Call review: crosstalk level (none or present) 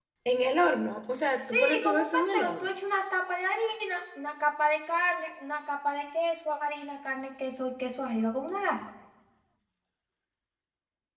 present